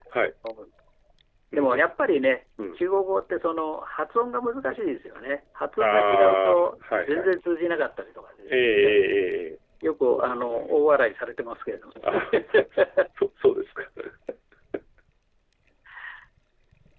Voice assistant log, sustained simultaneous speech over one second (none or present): present